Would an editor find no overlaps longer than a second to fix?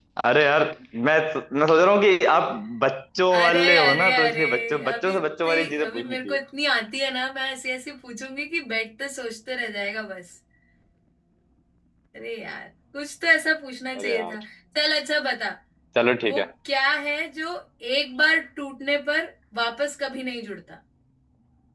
No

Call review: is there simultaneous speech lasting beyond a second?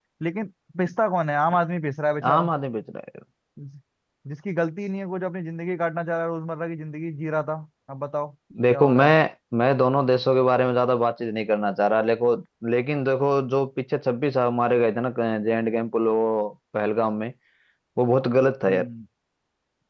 No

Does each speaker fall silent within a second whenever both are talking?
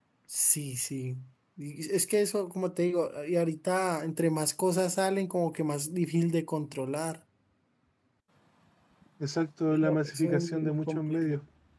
No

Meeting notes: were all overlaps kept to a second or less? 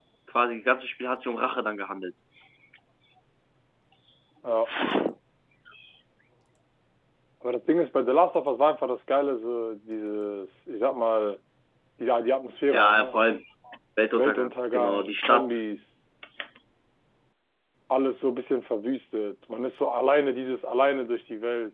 No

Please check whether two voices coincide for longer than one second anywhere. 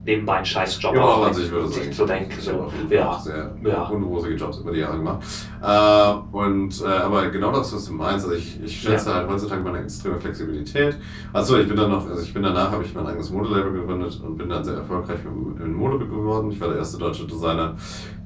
Yes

